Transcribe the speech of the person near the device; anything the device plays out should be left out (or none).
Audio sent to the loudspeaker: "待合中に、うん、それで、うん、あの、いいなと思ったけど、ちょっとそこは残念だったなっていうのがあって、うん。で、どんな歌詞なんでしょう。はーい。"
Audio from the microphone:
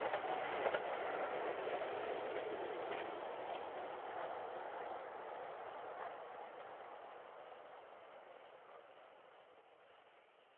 none